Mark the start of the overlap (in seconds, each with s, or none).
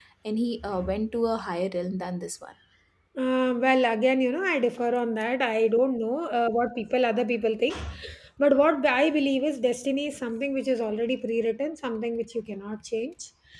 none